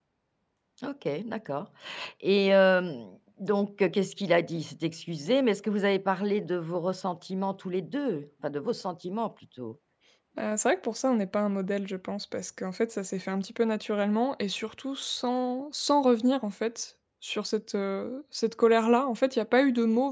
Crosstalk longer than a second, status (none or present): none